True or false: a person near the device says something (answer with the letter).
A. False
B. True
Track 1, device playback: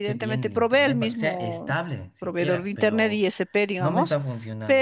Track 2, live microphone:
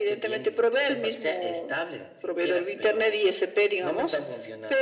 A